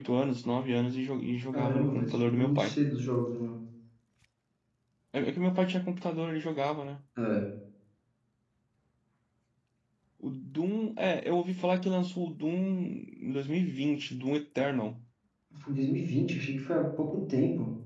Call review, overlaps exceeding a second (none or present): present